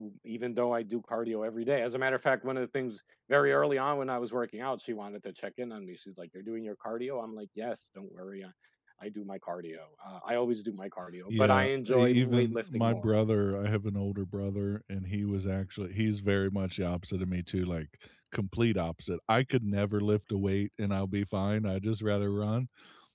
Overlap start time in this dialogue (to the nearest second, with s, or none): 11 s